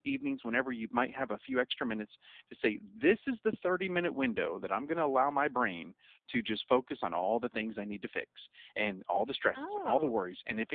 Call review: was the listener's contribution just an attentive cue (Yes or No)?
Yes